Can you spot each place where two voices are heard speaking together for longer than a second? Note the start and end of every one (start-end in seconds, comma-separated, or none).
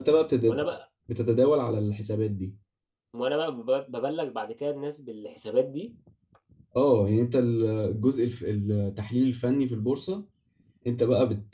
none